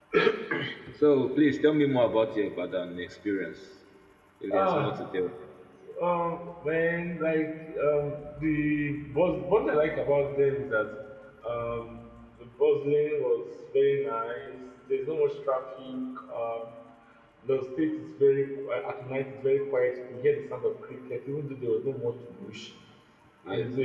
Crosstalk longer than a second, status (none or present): none